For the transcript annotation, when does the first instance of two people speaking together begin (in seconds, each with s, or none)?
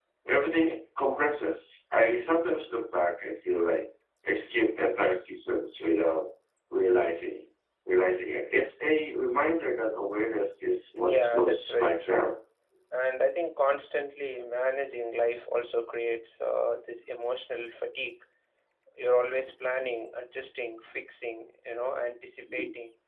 11.0 s